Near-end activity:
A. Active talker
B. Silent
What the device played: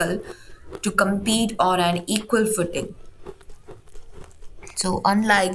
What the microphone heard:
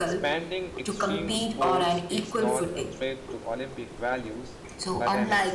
A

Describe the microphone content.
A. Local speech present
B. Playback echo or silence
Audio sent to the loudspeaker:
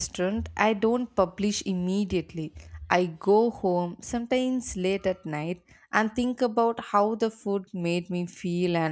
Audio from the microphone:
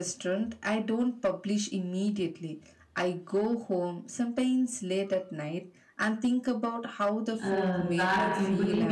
A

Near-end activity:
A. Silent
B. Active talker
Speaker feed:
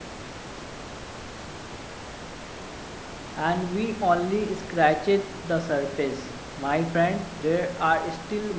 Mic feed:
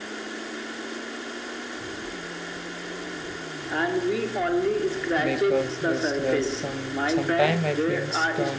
B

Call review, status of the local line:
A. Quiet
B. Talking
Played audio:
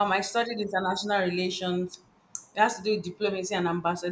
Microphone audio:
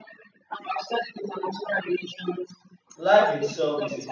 B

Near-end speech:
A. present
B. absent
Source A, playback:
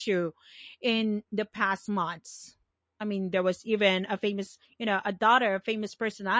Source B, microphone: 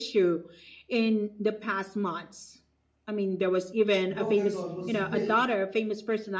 A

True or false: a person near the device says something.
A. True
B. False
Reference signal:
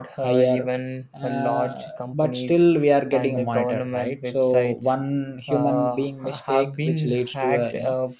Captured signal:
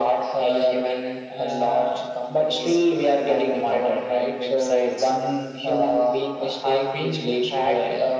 B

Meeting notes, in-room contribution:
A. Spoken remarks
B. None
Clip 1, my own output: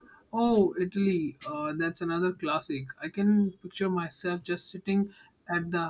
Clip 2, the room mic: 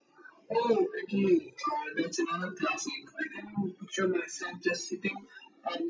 B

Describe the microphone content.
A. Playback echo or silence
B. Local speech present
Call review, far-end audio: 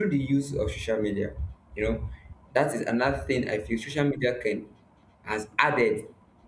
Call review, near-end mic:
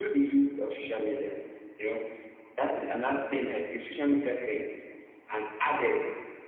A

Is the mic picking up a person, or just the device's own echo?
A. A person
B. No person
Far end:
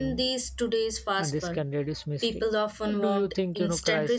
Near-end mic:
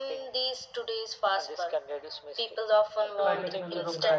A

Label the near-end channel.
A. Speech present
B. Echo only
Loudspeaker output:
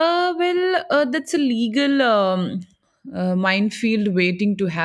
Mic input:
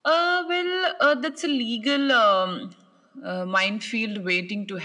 B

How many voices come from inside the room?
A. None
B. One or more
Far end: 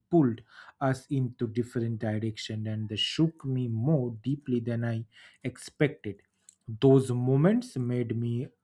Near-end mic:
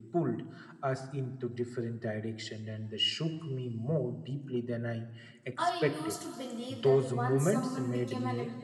B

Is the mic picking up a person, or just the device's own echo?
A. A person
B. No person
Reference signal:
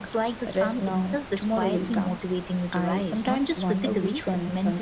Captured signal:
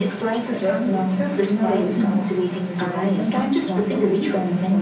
B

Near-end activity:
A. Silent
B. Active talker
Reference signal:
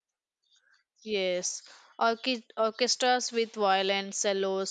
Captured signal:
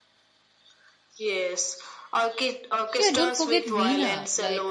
B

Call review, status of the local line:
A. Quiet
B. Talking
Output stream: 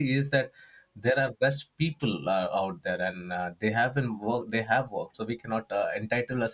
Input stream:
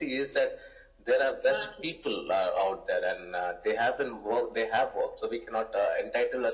B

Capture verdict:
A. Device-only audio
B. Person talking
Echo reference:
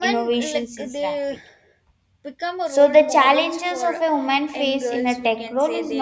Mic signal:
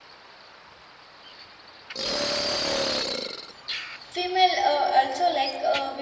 B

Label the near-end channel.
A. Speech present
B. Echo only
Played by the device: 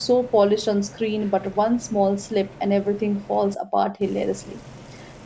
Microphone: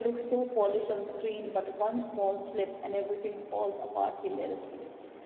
B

